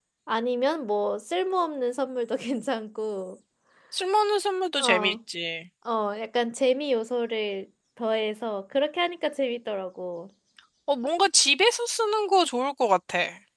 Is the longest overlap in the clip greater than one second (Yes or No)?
No